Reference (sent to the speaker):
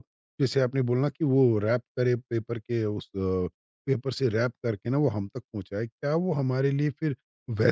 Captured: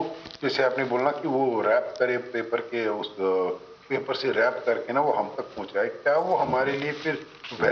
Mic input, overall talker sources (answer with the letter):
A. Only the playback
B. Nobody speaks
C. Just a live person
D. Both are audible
D